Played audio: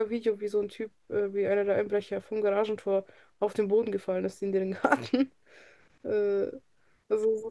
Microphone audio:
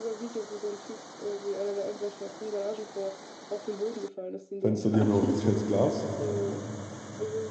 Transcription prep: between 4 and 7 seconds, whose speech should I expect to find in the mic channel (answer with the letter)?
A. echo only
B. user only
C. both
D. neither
C